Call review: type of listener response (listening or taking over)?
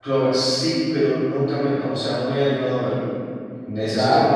listening